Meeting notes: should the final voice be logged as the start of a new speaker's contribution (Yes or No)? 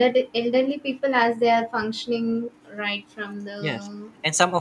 Yes